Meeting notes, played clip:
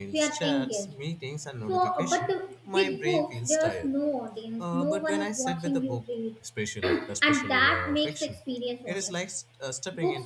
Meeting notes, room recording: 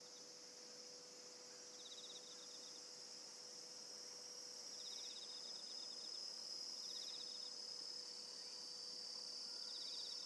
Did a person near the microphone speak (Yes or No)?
No